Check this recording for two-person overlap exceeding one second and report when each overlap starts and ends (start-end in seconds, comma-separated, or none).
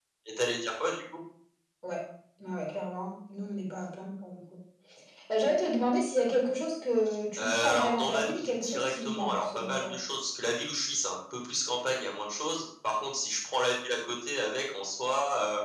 7.4-9.9